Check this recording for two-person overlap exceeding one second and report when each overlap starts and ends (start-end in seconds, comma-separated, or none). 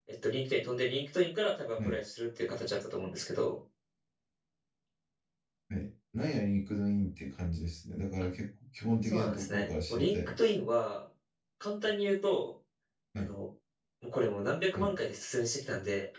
9.0-10.5